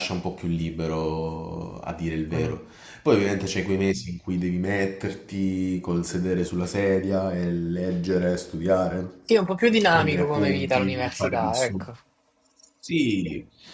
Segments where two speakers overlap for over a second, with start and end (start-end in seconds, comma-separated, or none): 9.9-11.8